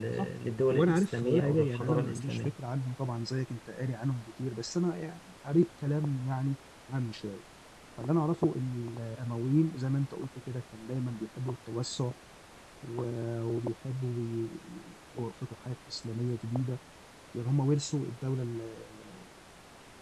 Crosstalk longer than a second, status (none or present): present